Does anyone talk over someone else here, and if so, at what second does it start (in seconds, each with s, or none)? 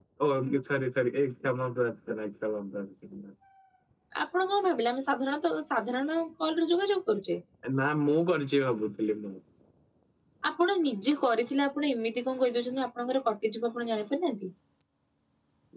none